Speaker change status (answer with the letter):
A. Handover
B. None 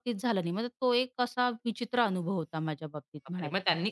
A